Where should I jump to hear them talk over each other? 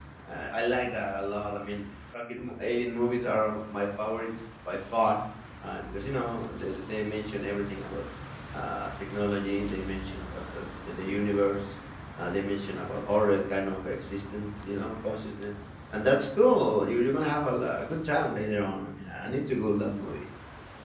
none

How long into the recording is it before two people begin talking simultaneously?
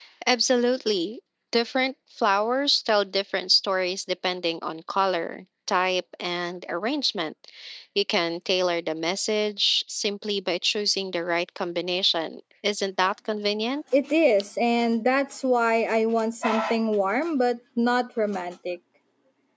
none

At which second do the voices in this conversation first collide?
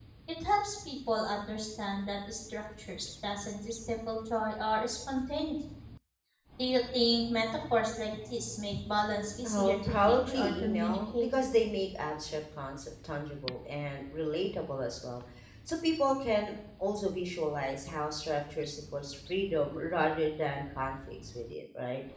9.4 s

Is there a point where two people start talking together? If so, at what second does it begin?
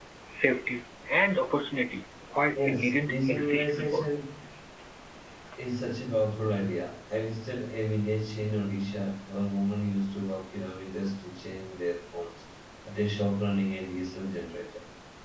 2.6 s

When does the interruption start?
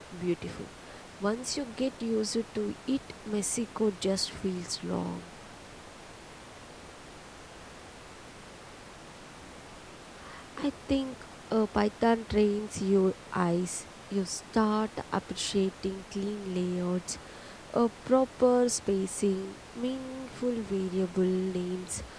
none

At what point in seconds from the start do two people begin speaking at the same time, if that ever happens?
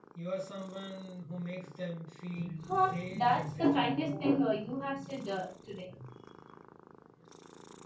2.6 s

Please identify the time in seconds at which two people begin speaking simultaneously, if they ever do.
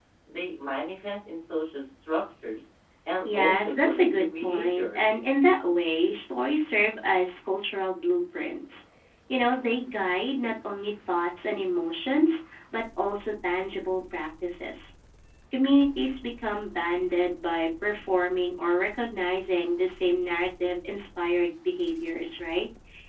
3.2 s

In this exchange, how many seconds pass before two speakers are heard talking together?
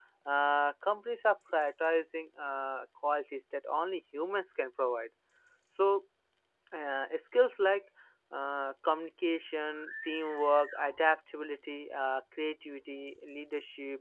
none

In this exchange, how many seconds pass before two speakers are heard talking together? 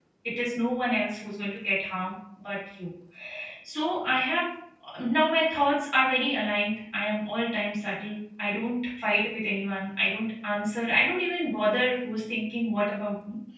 none

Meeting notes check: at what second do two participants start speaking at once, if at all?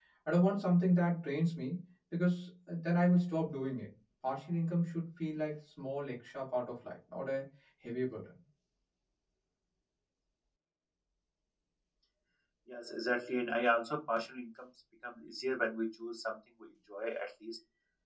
none

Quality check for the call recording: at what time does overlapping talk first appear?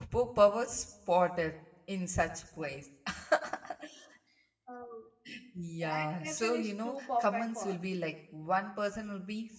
5.8 s

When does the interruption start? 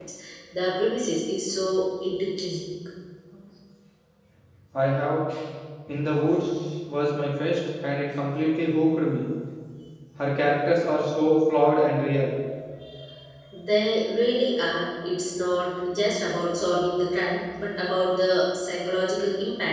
none

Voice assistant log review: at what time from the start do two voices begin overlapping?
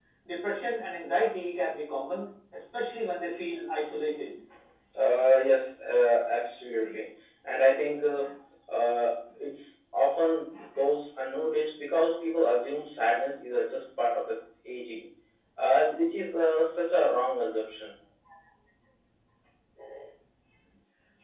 none

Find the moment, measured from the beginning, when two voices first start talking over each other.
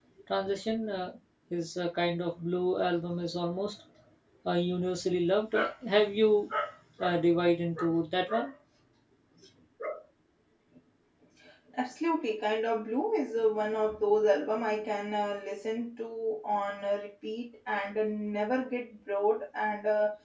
none

